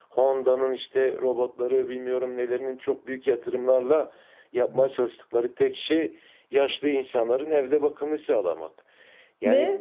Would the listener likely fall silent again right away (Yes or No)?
Yes